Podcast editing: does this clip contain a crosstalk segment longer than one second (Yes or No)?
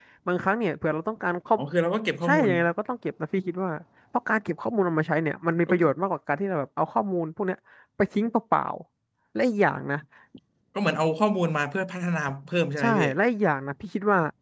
No